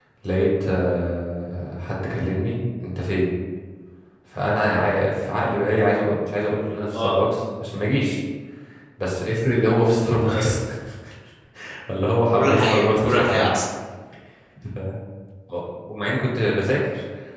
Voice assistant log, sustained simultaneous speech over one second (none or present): present